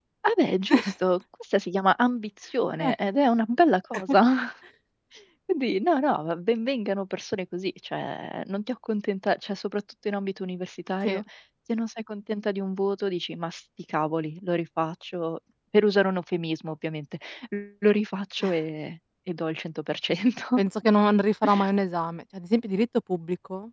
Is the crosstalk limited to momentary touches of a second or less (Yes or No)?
Yes